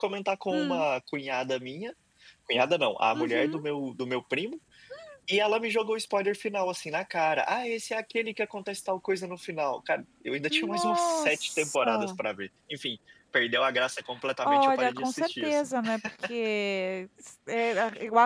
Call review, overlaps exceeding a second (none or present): present